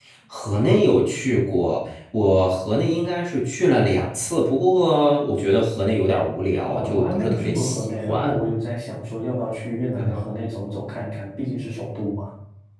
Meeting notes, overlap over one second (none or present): present